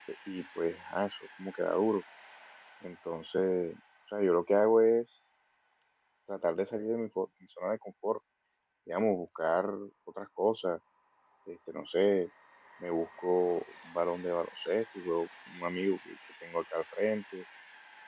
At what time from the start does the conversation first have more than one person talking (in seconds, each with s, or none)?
none